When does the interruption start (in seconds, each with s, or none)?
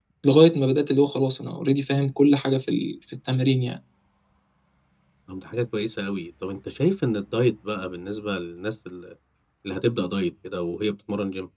none